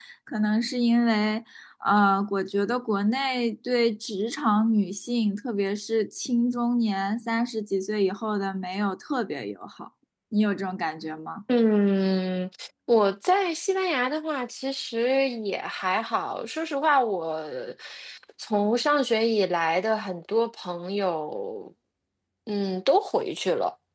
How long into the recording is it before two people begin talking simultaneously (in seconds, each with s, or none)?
none